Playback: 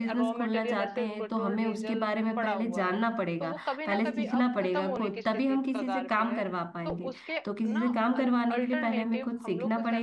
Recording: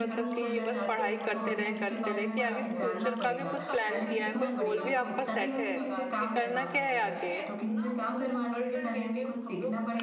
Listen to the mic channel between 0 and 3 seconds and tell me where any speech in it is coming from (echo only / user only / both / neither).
both